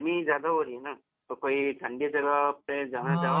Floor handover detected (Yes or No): Yes